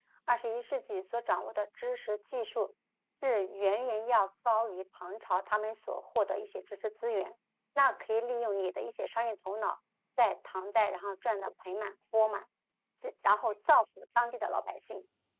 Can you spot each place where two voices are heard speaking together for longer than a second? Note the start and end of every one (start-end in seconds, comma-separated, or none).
none